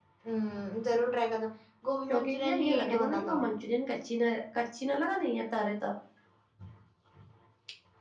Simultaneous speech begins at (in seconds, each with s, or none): 2.1 s